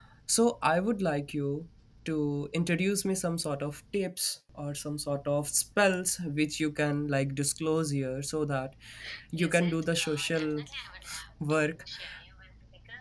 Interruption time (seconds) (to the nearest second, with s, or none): 9 s